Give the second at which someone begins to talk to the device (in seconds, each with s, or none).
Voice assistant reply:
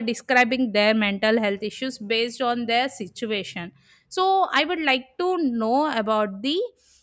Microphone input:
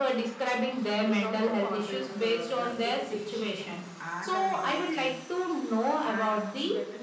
1.1 s